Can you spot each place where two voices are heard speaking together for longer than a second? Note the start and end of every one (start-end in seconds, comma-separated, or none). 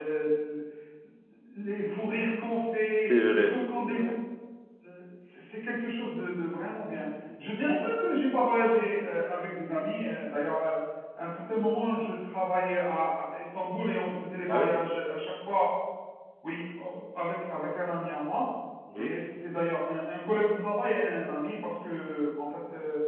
2.9-4.2